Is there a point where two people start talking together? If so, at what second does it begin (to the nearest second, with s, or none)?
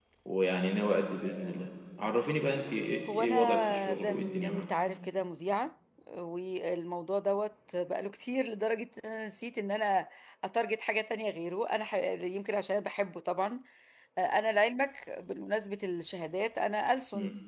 3 s